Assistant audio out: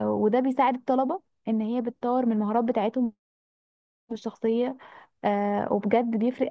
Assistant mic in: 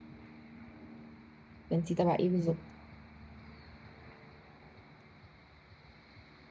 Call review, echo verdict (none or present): none